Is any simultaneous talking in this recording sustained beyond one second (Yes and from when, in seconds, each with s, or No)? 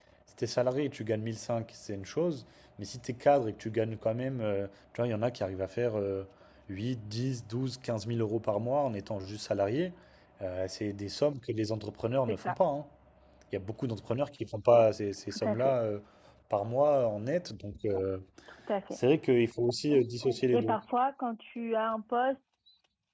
No